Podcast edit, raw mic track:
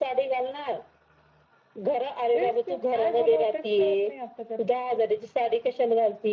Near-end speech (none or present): none